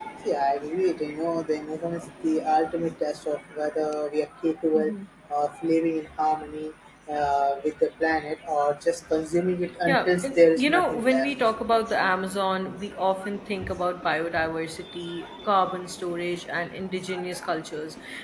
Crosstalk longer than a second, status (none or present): present